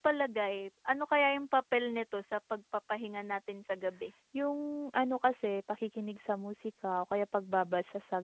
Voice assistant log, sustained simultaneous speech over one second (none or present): none